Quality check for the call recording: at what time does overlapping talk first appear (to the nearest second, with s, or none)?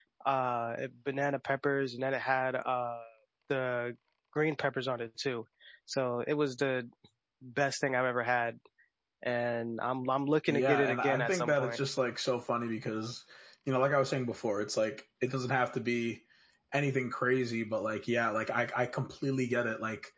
10 s